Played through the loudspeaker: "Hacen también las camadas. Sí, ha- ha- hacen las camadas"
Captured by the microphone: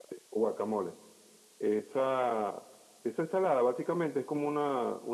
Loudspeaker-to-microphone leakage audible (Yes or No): No